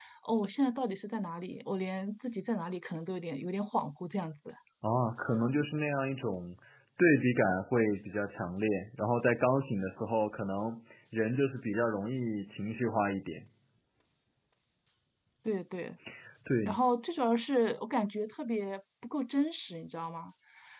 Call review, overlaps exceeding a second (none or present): none